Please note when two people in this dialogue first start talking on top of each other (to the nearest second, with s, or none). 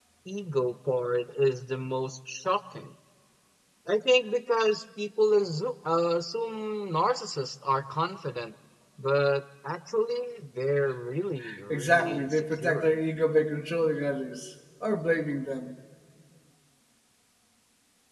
12 s